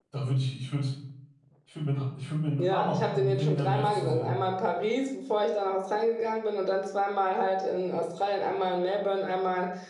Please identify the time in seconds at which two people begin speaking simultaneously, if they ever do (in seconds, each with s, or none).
2.6 s